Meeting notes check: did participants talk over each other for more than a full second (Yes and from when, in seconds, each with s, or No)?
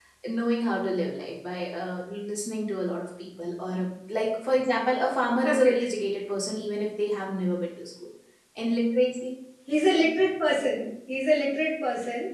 No